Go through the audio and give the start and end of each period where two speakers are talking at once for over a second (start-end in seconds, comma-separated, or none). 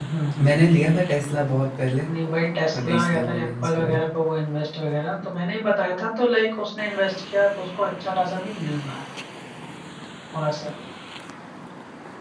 2.7-4.0